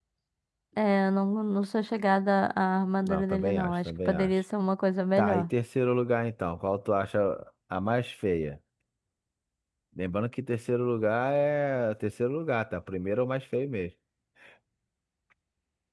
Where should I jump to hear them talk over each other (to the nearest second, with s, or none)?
3 s